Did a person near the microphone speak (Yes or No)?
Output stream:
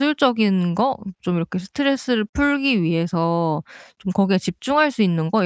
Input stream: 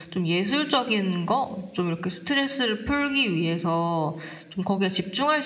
No